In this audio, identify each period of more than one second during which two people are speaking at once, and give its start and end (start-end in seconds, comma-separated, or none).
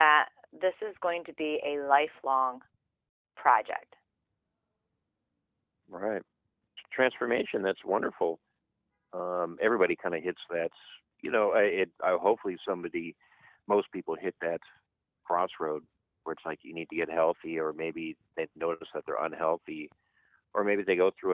none